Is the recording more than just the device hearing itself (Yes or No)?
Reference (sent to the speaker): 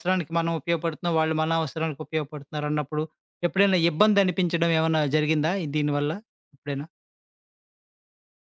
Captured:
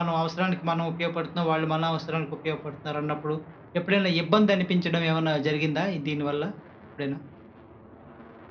No